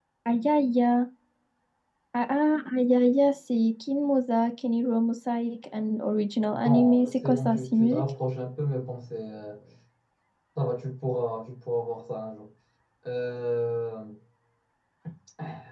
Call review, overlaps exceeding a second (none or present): present